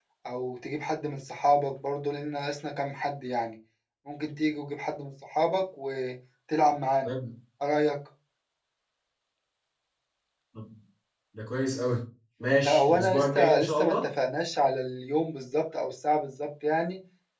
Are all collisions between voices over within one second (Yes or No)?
No